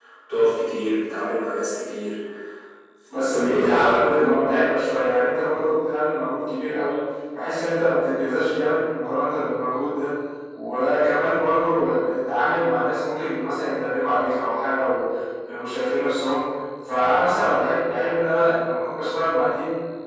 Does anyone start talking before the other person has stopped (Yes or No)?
Yes